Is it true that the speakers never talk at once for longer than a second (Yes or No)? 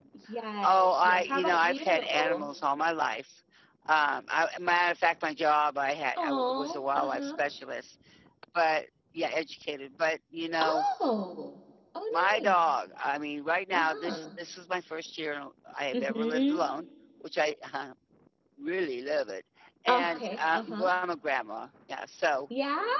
No